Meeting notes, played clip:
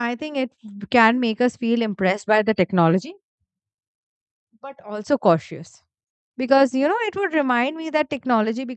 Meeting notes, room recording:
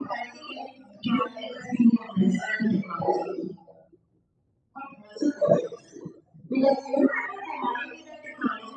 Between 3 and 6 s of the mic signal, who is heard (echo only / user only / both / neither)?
echo only